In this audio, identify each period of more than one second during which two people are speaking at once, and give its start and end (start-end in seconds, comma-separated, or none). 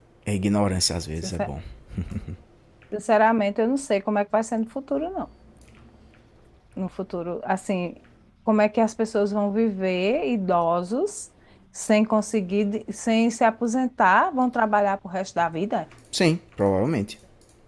none